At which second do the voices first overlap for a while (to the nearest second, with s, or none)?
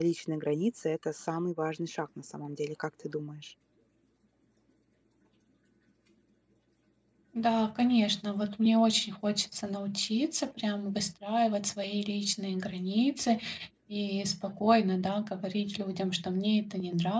none